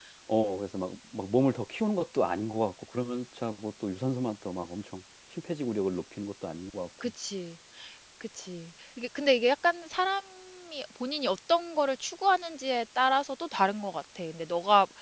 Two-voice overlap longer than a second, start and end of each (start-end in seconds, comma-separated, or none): none